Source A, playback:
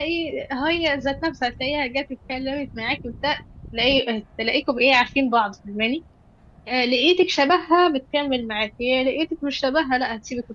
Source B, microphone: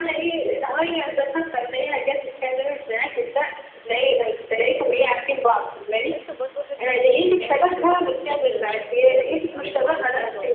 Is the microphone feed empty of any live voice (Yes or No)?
No